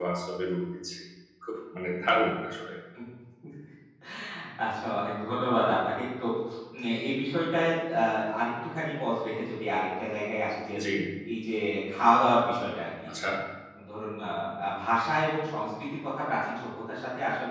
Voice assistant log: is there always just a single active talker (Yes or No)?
Yes